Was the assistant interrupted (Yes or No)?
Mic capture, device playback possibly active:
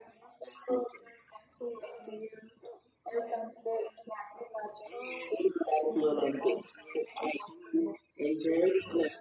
Yes